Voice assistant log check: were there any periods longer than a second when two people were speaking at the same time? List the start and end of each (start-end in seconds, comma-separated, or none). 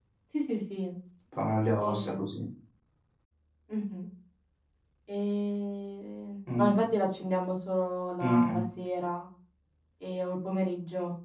none